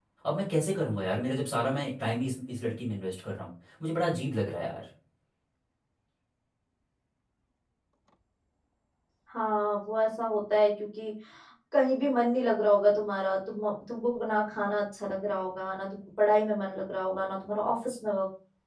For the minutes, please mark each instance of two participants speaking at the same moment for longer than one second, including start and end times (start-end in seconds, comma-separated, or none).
none